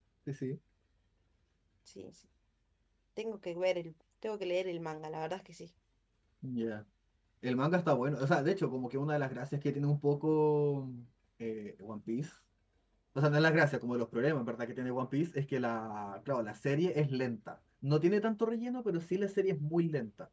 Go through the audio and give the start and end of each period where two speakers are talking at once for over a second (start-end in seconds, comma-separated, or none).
none